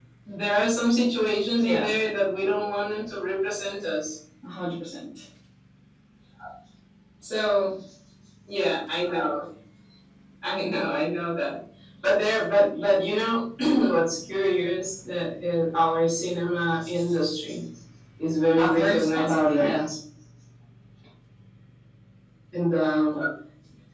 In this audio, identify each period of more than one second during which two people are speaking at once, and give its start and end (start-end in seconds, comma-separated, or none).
18.5-19.8